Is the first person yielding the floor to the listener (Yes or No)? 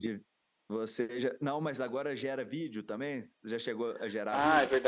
Yes